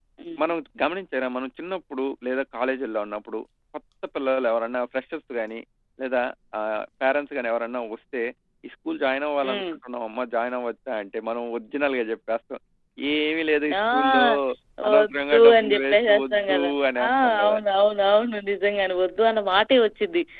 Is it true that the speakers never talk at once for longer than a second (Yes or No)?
No